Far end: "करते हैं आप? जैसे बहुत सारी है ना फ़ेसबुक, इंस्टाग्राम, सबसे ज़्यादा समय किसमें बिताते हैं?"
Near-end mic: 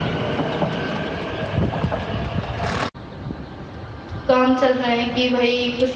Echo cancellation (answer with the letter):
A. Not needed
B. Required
A